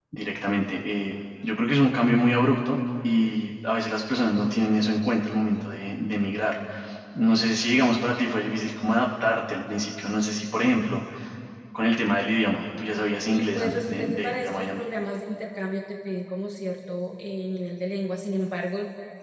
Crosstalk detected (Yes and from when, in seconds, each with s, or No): Yes, from 13.3 s